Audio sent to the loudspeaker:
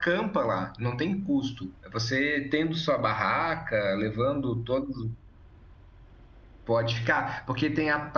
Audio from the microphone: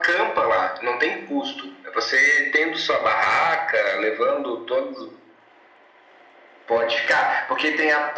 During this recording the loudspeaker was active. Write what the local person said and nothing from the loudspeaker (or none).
none